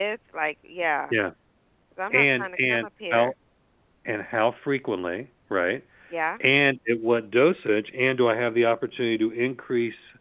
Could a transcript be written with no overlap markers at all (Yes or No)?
No